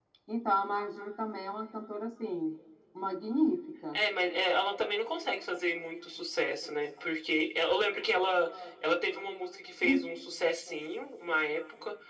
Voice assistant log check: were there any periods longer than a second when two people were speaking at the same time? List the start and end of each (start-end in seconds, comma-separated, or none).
none